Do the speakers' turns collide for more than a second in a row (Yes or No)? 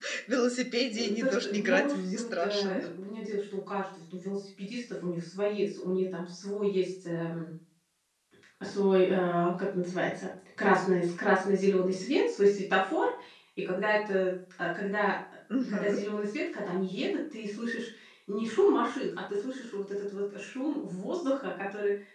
Yes